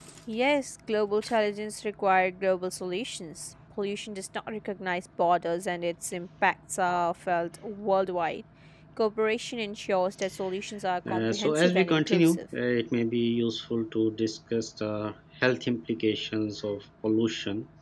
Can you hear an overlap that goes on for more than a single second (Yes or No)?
Yes